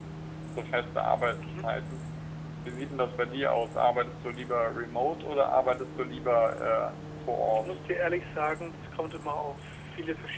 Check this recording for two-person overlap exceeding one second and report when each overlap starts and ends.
none

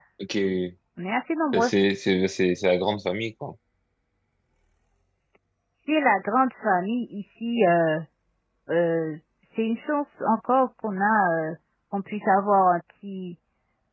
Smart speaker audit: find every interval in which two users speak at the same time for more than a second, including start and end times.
none

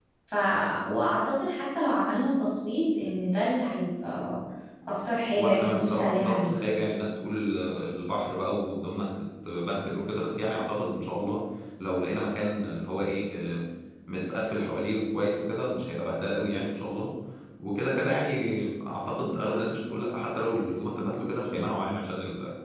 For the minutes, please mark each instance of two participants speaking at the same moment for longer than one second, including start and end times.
5.4-6.6

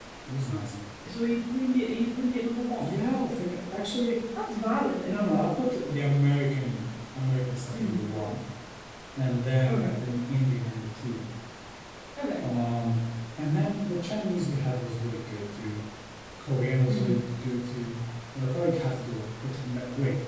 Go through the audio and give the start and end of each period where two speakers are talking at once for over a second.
none

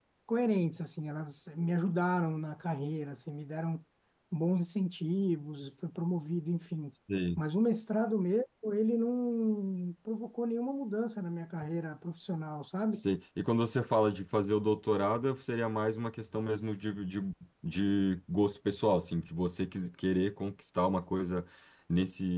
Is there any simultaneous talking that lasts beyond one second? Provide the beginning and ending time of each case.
none

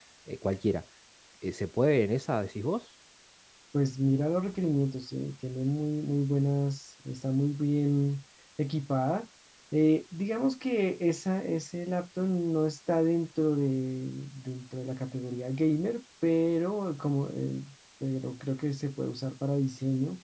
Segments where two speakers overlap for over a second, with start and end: none

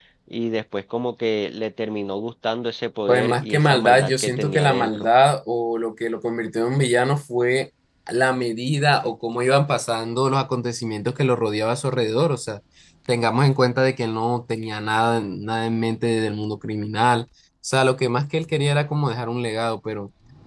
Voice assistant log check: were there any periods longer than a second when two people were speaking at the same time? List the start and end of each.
3.1-5.1

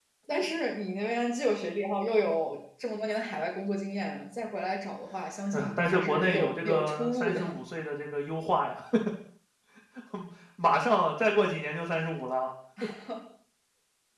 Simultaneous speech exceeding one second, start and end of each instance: 5.5-7.4

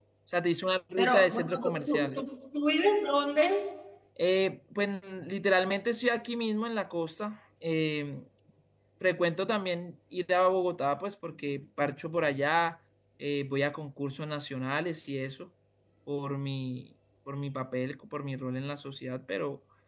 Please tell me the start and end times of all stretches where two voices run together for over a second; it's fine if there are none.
1.0-2.2

